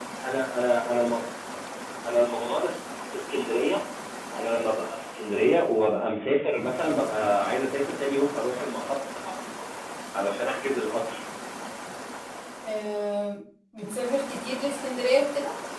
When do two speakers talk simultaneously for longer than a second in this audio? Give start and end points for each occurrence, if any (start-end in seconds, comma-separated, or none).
none